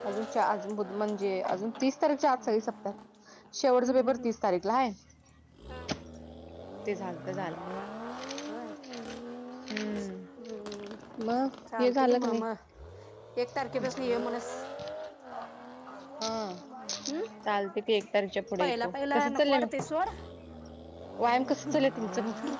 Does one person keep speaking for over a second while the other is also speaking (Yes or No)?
Yes